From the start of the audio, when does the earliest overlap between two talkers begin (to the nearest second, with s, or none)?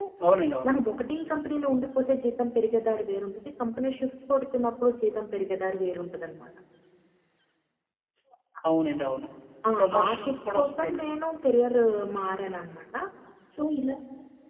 10 s